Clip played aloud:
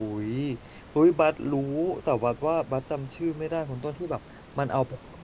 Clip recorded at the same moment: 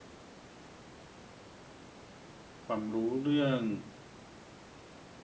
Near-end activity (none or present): present